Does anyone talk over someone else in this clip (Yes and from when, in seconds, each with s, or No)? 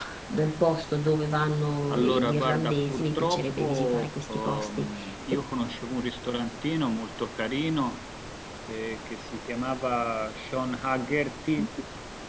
Yes, from 1.9 s